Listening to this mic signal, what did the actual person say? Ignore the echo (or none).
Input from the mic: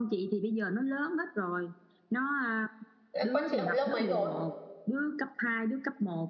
Thế Con chị học lớp mấy rồi?